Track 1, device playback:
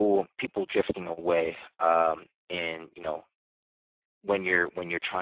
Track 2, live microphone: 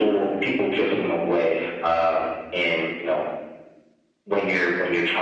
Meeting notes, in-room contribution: none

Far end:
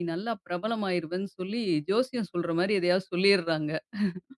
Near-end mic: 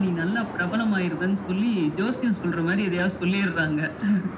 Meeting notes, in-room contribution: none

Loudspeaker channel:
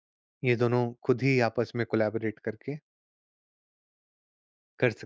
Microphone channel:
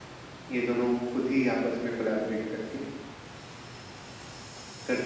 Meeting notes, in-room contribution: none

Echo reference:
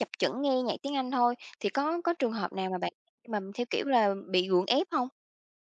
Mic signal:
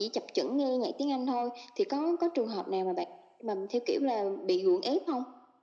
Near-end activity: none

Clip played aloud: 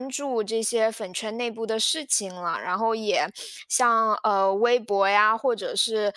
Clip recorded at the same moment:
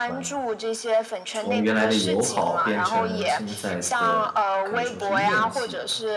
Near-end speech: present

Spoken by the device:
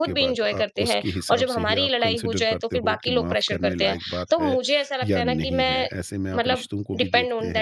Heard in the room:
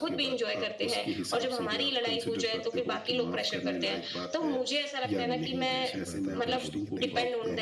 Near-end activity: present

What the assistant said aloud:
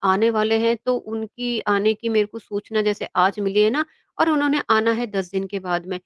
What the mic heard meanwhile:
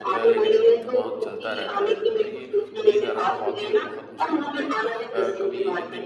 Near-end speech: present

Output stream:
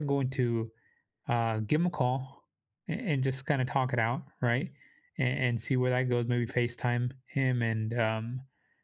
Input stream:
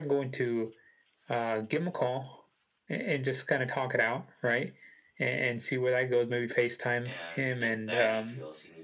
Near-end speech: present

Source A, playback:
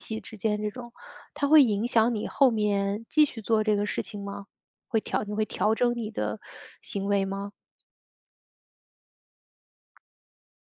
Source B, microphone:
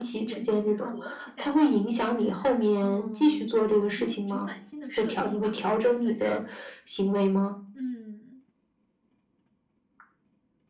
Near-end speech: present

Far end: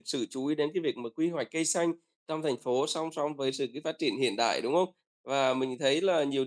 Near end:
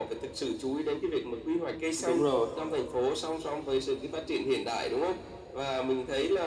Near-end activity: present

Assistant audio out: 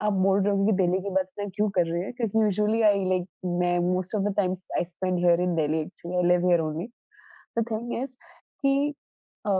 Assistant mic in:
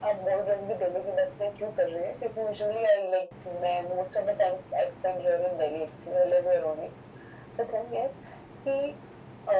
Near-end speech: none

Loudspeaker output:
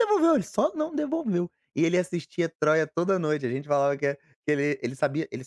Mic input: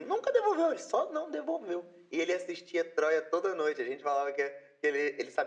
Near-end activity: none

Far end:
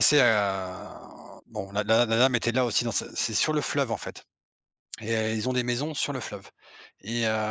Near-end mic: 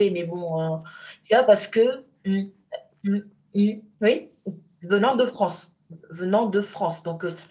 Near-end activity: present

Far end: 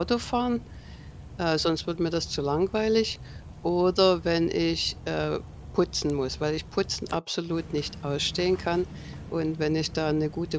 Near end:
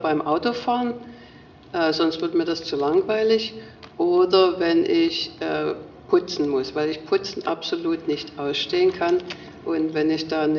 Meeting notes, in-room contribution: none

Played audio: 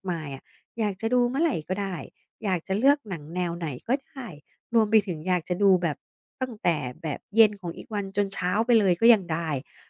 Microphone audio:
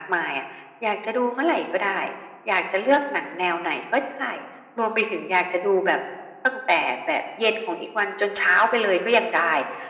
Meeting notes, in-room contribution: none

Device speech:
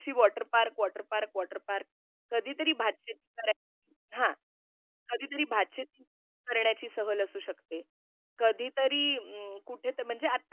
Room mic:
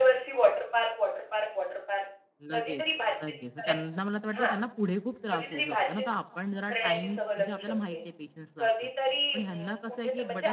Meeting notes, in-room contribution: present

